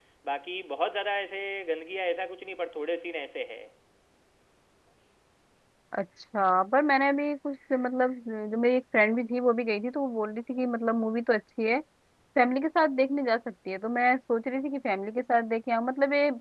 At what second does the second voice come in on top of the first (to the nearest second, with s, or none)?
none